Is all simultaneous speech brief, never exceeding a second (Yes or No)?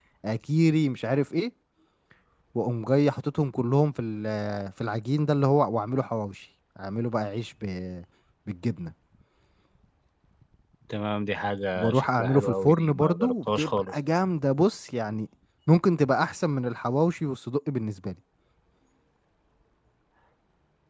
No